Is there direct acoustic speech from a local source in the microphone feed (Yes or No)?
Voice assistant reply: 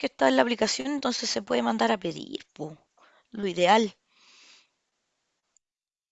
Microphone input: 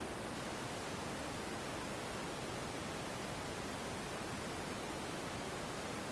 No